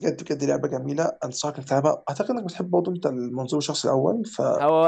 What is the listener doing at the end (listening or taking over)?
taking over